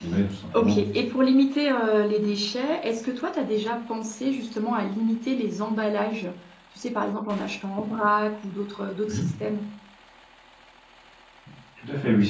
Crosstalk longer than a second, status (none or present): none